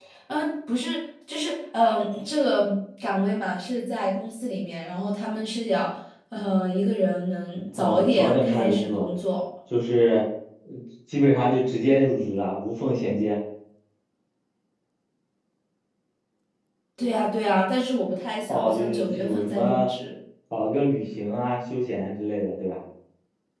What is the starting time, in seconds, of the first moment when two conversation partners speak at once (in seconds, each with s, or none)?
7.8 s